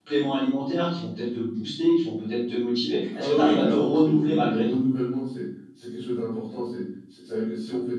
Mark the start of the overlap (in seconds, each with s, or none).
3.1 s